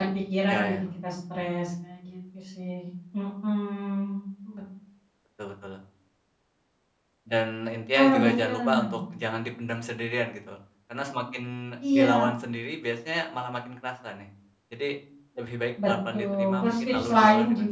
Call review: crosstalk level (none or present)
present